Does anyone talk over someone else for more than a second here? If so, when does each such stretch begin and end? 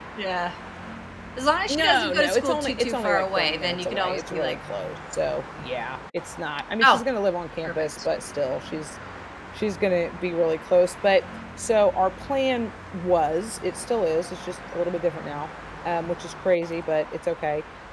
1.7-4.6

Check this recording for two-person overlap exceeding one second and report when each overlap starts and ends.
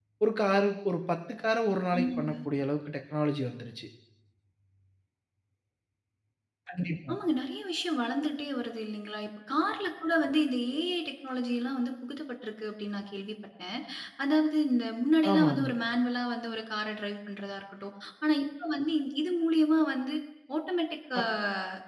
none

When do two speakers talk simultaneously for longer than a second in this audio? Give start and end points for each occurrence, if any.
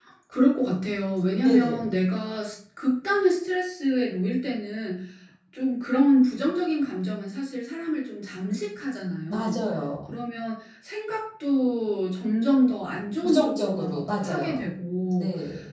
13.2-14.7

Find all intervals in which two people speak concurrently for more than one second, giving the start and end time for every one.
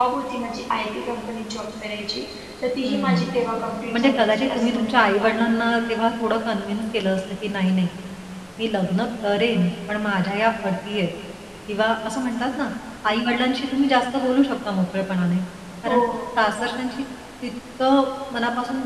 3.9-5.3

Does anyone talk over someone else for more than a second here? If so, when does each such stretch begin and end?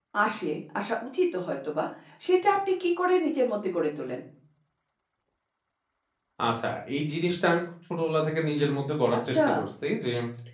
none

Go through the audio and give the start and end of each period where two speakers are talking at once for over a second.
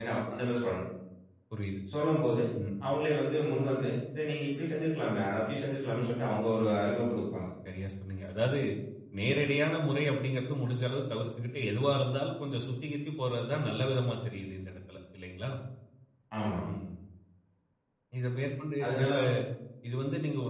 none

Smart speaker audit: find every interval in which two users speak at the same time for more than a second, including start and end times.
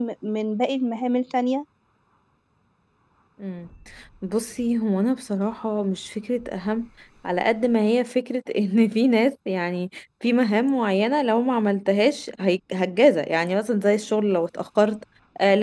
none

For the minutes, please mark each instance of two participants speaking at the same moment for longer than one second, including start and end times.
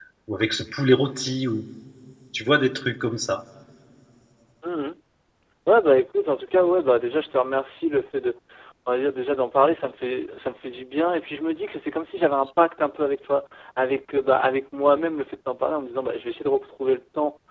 none

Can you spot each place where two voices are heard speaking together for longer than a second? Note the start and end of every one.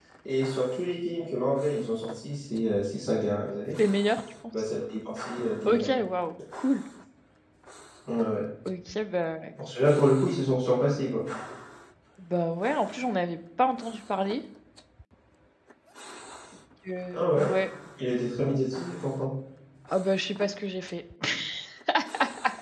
none

